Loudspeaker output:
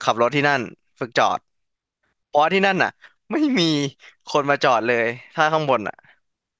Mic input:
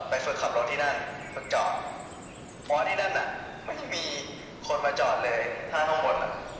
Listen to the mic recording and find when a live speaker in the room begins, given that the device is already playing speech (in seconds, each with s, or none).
none